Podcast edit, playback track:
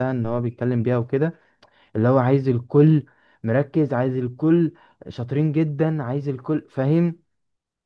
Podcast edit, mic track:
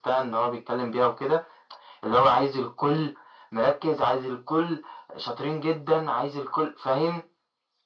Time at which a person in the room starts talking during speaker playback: none

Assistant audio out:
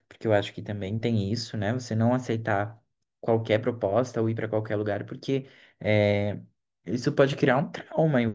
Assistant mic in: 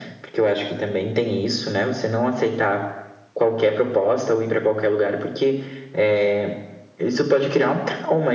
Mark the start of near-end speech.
none

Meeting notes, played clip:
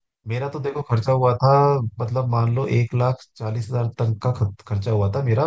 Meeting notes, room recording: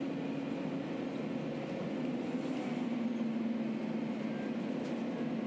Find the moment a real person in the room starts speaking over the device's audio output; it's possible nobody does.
none

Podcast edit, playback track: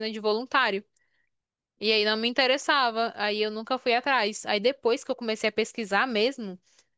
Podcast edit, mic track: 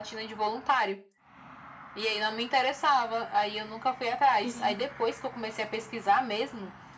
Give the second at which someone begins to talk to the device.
4.4 s

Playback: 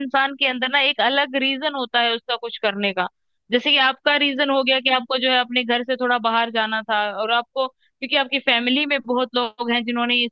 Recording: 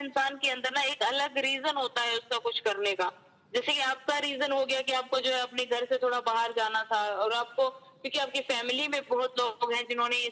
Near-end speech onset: none

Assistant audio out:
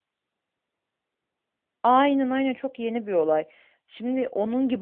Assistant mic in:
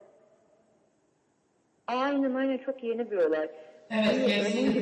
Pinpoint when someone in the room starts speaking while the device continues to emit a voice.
3.9 s

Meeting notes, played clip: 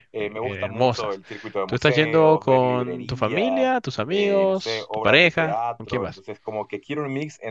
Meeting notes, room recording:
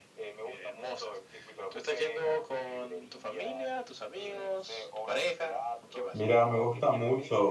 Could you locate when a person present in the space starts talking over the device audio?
6.1 s

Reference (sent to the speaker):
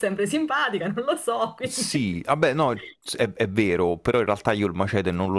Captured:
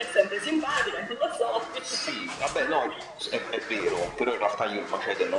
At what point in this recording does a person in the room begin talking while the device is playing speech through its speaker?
none

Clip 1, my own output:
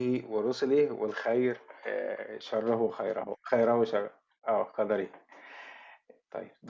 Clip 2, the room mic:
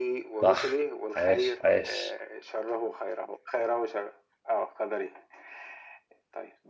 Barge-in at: 0.4 s

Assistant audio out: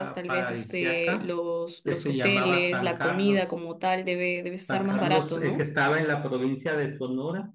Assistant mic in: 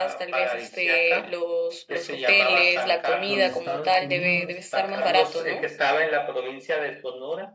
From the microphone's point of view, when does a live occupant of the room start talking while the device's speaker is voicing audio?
3.2 s

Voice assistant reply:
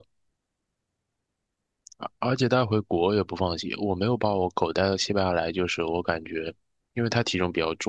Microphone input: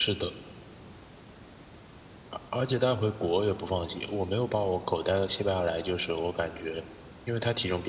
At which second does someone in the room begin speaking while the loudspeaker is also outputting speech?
none

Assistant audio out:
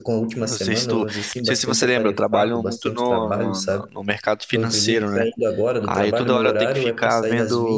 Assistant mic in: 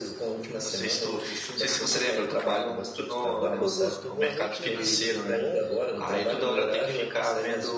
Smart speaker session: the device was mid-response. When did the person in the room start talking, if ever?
3.4 s

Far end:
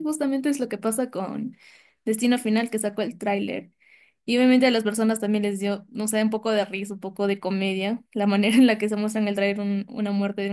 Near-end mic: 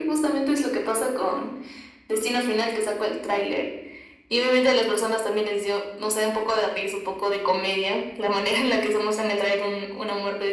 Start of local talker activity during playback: none

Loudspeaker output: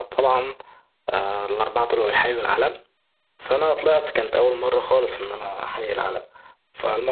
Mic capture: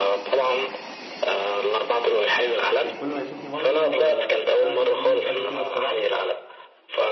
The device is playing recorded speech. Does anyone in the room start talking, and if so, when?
2.8 s

